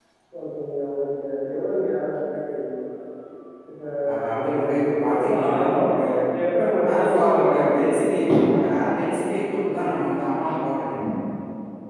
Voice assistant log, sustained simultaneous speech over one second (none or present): present